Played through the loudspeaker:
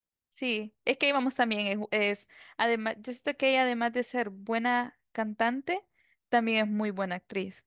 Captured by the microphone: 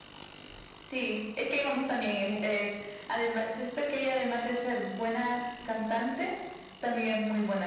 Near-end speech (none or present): none